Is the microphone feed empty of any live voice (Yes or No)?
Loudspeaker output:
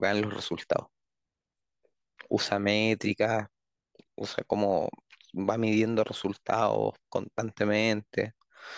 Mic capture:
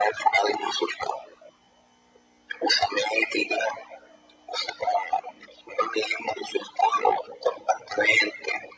Yes